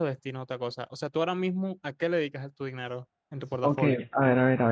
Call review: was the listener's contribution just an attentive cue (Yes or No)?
No